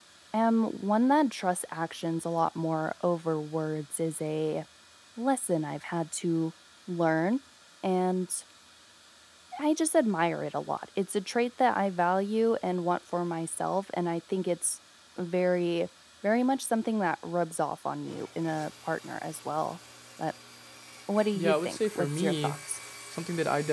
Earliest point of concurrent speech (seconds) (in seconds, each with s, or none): 21.4 s